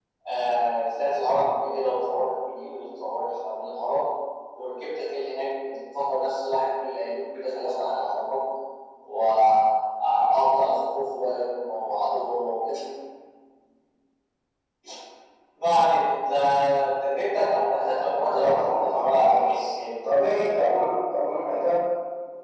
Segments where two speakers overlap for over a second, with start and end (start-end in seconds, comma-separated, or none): 18.2-19.4